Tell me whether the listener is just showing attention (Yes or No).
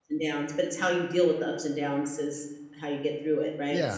No